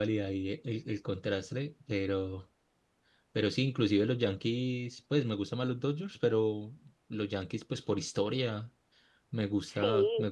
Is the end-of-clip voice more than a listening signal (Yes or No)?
No